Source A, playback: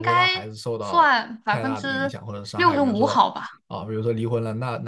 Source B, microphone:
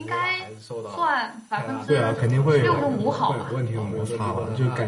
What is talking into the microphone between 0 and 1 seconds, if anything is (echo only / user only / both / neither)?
echo only